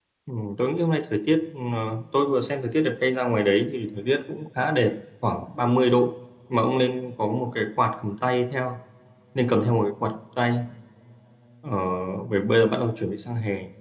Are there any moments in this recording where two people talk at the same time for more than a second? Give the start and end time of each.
none

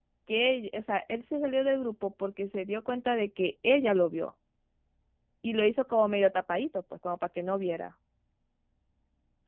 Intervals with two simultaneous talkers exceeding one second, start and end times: none

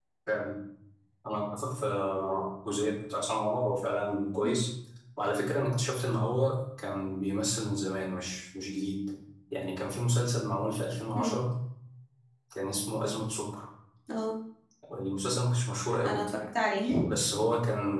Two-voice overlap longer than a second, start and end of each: none

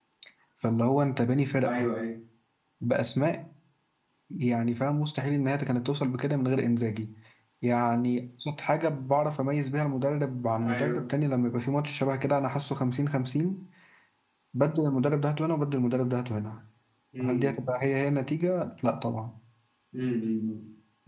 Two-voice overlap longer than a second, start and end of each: none

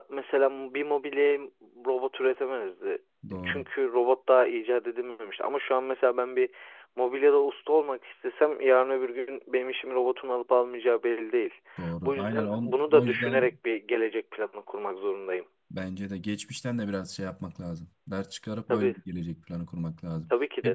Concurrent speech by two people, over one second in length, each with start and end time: 12.0-13.5

